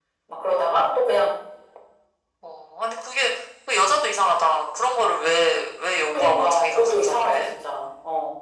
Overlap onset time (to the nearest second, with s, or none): 6 s